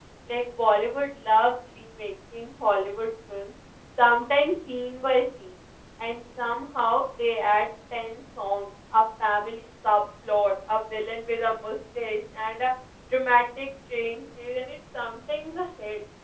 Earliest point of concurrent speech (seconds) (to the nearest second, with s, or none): none